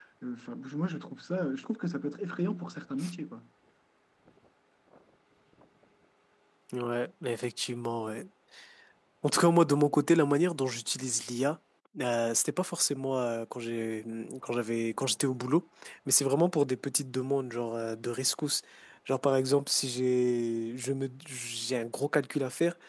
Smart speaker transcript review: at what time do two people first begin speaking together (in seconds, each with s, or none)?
none